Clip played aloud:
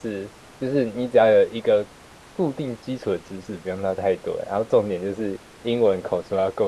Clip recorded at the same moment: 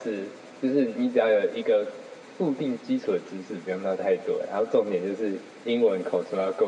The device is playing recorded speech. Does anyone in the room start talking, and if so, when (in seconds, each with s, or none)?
none